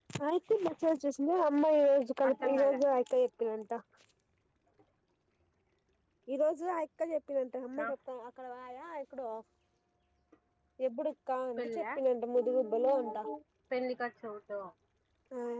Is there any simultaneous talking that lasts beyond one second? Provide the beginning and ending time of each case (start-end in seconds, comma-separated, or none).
none